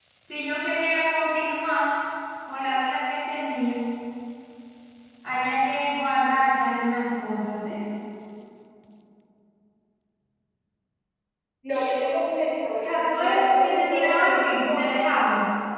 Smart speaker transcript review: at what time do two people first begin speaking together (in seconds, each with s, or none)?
12.8 s